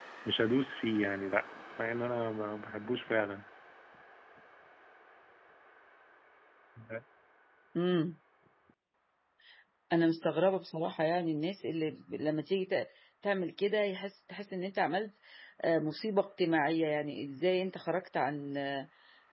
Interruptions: none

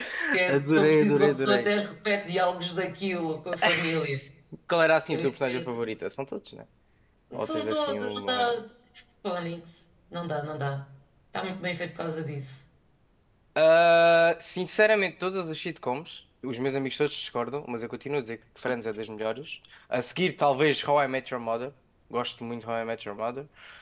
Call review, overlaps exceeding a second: present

